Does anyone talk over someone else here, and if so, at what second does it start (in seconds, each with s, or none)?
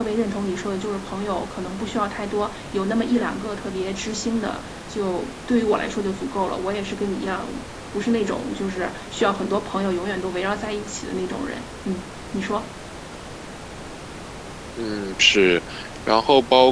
none